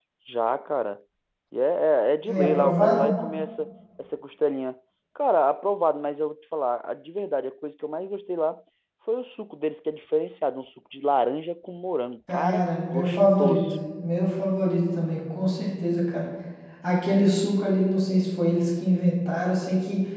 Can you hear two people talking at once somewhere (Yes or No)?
Yes